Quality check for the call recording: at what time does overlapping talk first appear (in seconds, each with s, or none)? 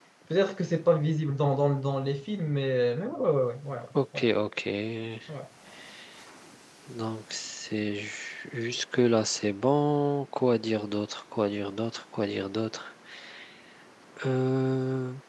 none